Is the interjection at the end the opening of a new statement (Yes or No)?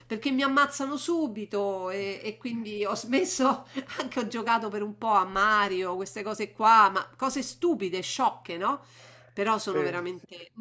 No